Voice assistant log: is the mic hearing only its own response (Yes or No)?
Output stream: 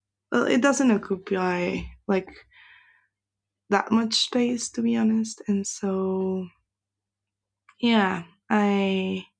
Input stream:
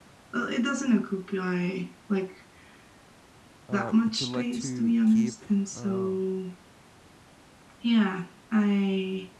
No